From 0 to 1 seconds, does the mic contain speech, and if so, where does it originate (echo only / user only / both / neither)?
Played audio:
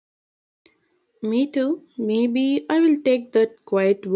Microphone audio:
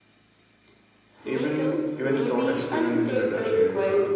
neither